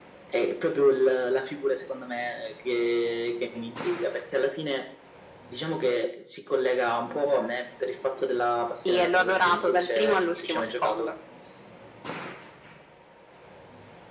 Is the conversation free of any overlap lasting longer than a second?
No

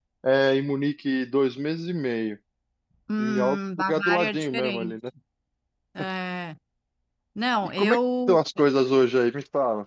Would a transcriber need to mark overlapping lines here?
Yes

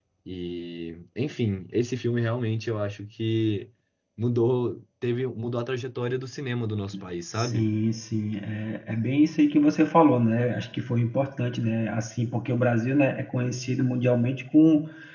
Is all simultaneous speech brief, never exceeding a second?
Yes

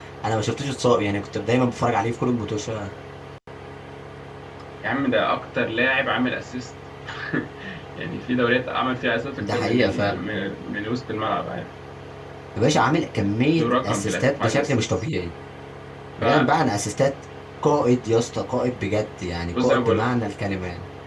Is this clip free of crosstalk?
No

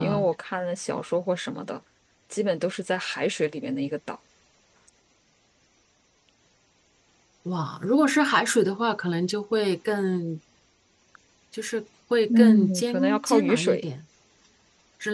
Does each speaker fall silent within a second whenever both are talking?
No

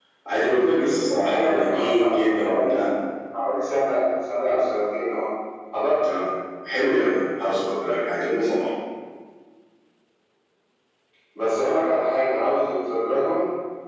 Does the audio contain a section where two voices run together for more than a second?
Yes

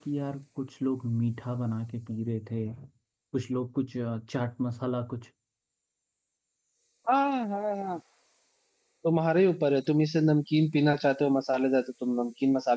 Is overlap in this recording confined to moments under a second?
Yes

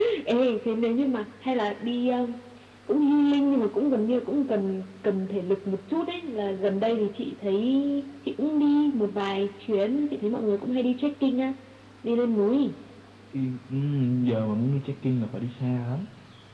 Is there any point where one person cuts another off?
No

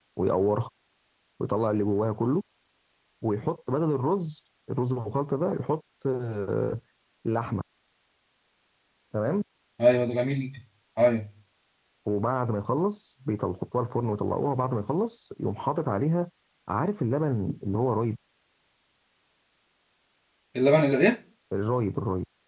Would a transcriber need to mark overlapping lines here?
No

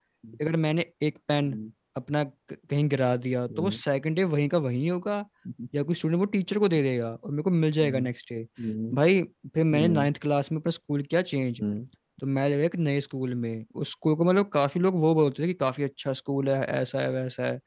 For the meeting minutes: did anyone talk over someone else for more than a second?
No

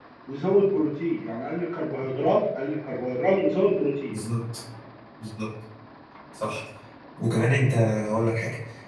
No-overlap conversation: Yes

